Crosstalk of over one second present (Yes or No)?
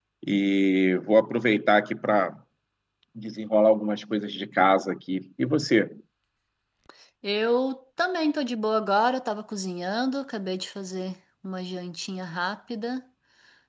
No